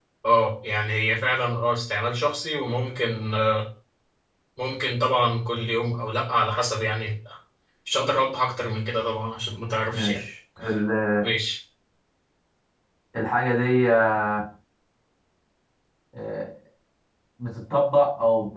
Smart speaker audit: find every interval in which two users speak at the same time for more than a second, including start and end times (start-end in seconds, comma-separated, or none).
none